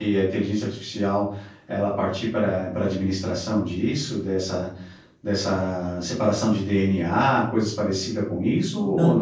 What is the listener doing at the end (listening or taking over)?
taking over